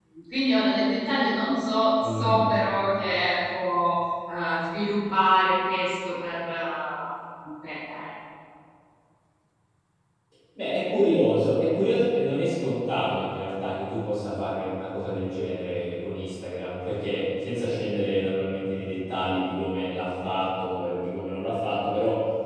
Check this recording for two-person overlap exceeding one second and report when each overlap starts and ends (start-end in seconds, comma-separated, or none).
none